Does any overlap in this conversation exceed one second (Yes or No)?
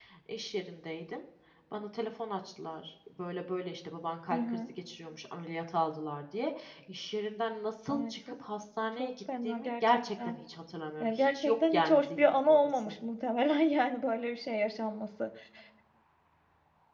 Yes